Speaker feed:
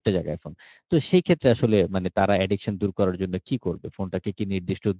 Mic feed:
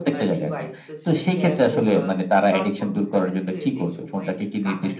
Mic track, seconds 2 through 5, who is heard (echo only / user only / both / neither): both